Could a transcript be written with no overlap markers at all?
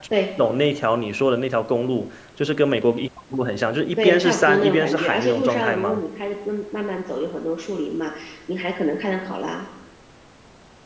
No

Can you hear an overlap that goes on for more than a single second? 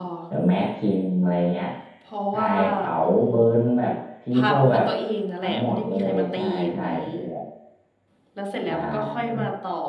Yes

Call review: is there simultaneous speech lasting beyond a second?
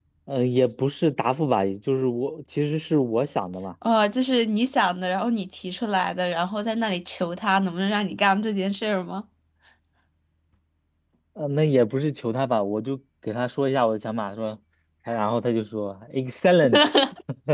No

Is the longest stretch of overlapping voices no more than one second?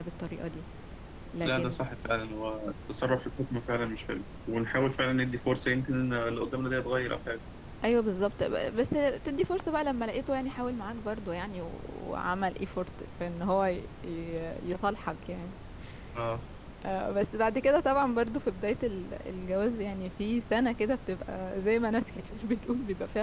Yes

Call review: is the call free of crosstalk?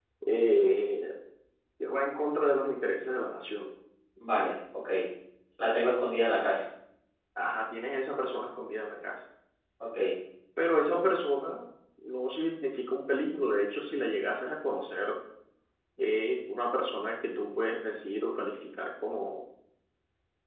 Yes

